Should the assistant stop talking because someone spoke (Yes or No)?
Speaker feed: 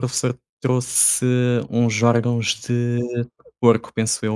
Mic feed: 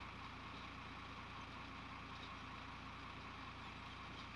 No